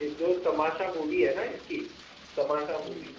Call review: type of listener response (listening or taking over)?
listening